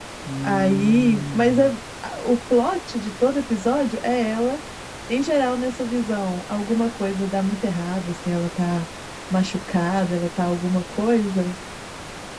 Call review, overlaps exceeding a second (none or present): present